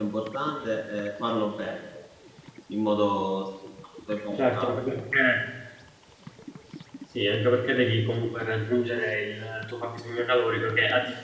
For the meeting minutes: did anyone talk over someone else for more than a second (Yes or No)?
No